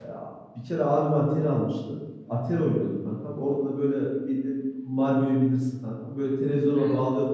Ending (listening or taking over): listening